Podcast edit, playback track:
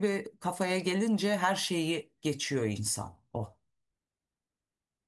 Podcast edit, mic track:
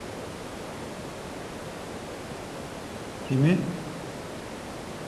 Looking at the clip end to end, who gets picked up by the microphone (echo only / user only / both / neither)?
user only